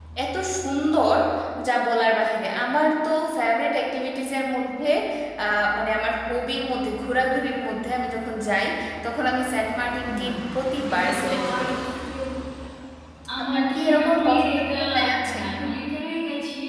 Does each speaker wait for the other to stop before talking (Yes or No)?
No